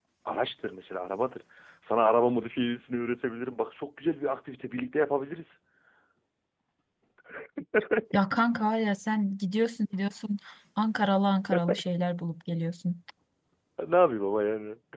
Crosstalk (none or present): none